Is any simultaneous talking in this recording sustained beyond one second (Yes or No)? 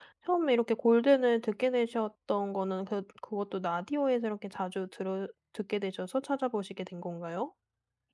No